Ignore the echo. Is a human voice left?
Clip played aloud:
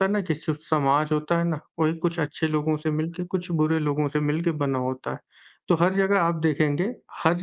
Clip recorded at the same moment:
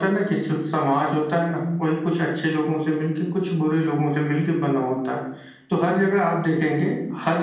No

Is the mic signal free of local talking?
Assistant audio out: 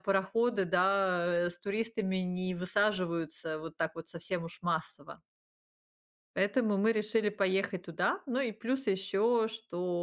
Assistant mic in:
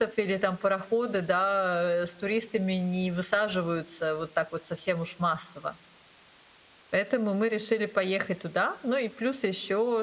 Yes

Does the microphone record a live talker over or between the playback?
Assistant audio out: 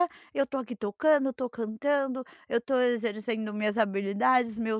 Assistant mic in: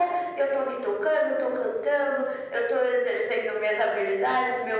No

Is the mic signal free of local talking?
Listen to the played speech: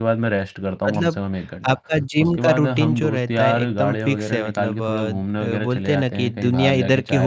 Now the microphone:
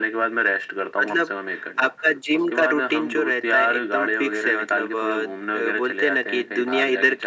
Yes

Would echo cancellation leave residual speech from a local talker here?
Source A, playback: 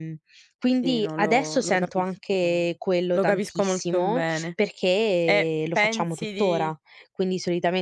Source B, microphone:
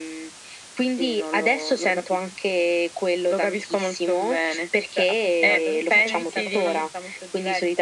Yes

